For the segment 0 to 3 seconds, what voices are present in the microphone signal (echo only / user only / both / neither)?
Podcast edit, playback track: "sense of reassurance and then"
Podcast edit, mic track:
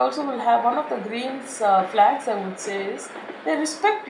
user only